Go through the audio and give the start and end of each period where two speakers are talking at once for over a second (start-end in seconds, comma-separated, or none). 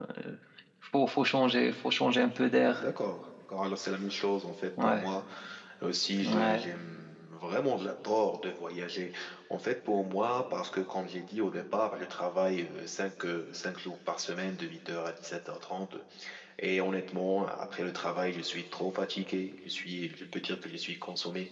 none